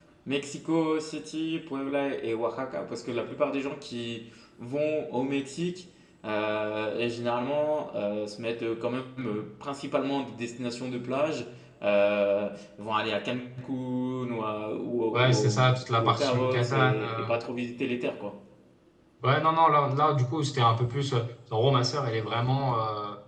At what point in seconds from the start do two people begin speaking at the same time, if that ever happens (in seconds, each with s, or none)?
15.1 s